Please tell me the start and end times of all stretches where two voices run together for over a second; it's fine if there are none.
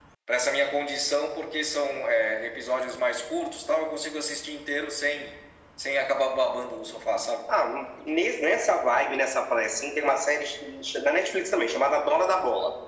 none

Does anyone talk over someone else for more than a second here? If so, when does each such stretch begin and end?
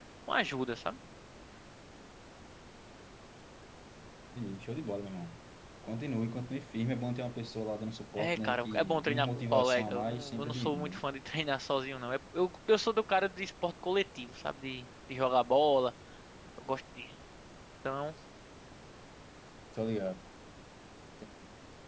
8.2-11.0

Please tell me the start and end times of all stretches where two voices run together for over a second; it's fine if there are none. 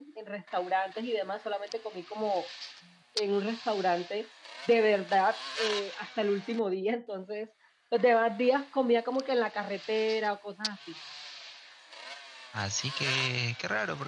none

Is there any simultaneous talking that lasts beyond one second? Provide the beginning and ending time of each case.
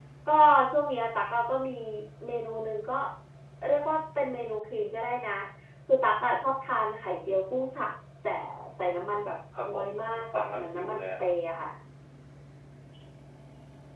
9.6-11.0

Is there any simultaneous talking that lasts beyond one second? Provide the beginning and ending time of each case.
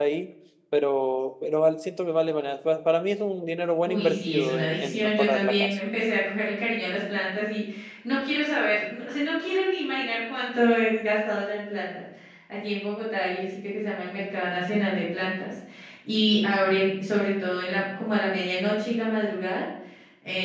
3.9-5.8

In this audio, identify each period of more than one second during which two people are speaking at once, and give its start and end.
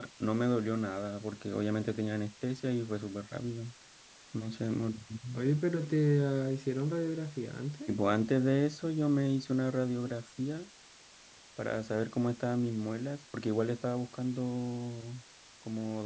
none

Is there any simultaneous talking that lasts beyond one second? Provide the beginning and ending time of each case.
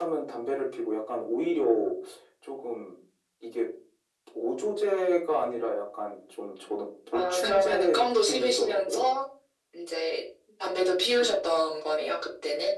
7.1-9.0

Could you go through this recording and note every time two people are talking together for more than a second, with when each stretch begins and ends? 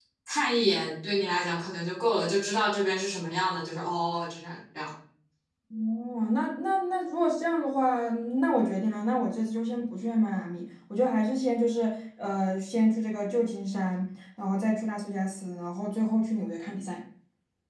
none

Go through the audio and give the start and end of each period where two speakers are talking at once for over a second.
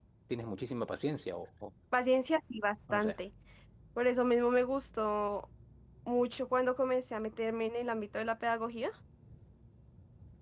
none

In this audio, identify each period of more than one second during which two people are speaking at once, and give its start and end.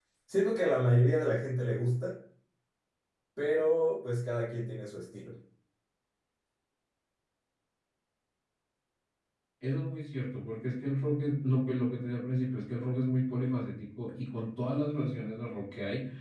none

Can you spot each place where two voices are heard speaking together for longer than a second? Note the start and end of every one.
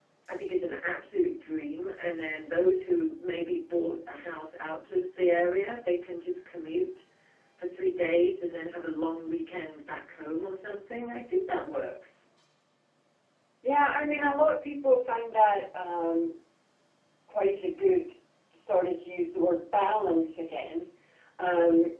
none

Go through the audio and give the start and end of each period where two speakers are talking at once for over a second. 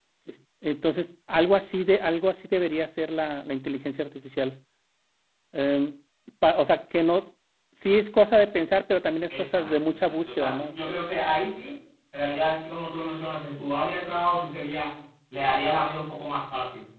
9.3-10.7

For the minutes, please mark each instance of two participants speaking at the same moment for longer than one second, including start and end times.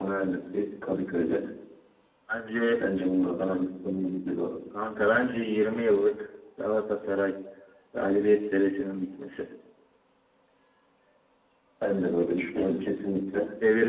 none

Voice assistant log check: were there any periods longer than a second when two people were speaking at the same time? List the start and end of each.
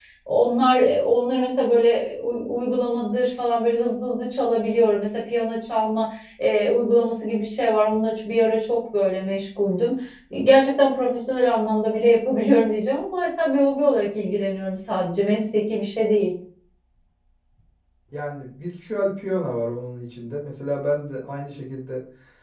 none

